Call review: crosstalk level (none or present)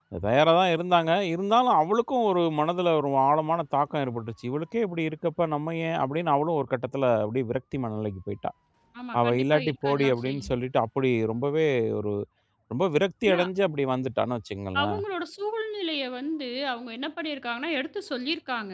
present